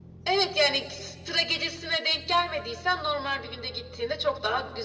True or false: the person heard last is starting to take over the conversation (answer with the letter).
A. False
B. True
A